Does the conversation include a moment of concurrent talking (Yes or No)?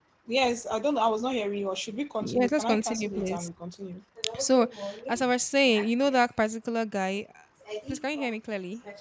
Yes